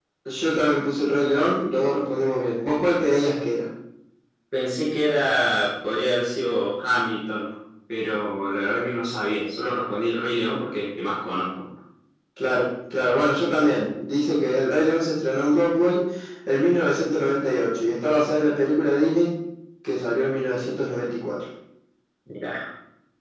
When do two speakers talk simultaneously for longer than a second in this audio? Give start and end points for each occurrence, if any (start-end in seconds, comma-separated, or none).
none